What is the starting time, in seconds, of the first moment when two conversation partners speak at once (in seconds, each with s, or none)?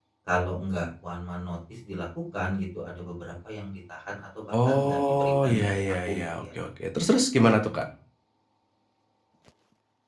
4.5 s